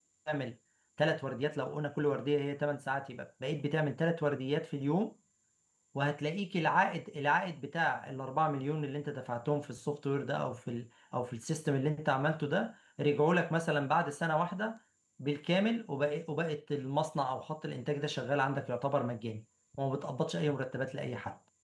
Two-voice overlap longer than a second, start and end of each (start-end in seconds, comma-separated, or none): none